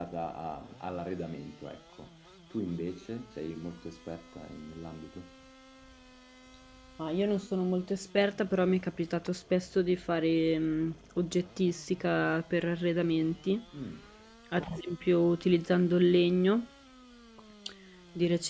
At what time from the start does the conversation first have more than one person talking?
none

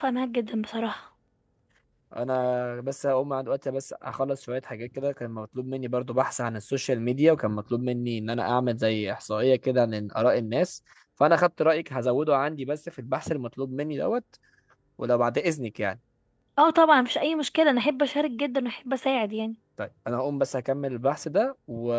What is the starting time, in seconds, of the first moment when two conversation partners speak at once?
none

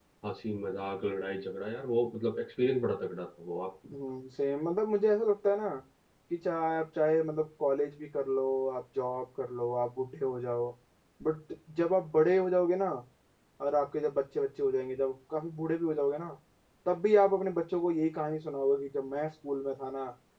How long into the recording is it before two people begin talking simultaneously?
none

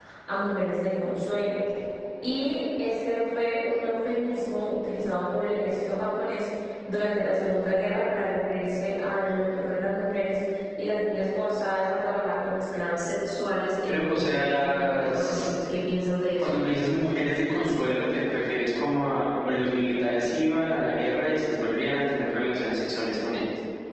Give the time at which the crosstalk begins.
14 s

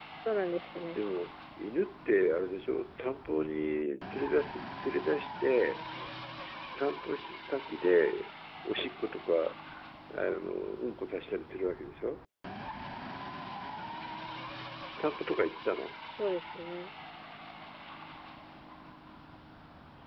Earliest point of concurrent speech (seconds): none

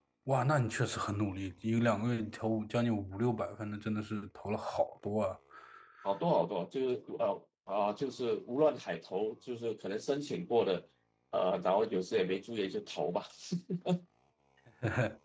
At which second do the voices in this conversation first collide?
none

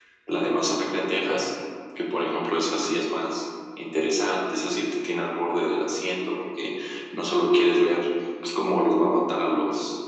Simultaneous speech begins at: none

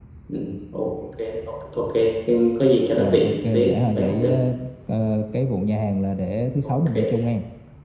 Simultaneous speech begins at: 3 s

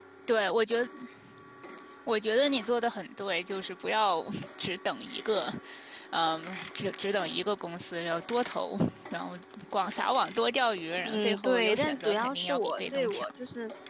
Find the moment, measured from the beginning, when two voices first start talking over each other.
11 s

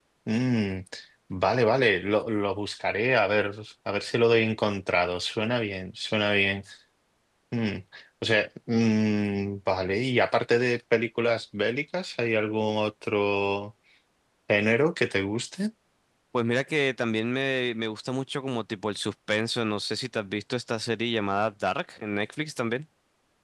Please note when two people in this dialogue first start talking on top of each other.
none

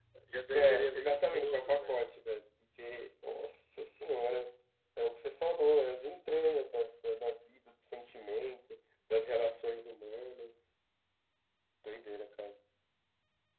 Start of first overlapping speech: 1 s

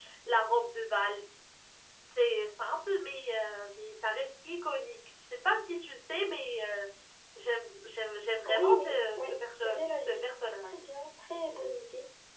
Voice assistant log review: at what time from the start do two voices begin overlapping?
8 s

